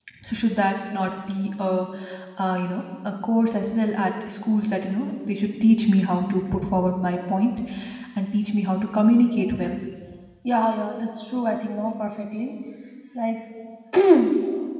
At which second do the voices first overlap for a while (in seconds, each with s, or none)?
none